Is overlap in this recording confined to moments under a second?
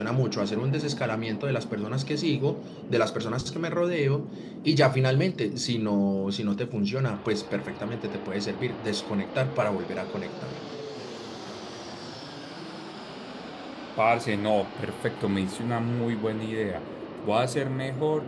Yes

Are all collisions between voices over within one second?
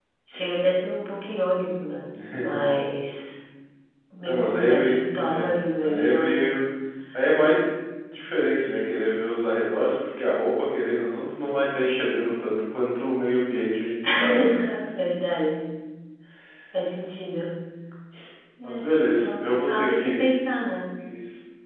No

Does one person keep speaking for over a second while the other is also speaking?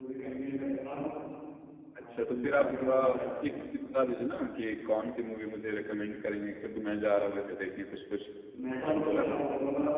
Yes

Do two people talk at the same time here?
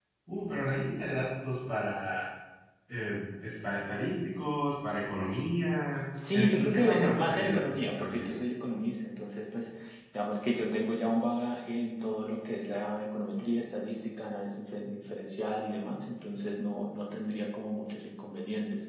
Yes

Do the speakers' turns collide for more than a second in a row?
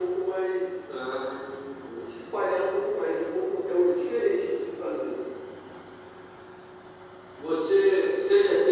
No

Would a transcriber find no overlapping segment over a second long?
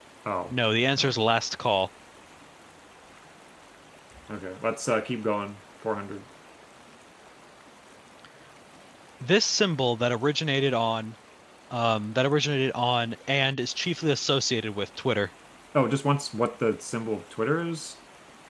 Yes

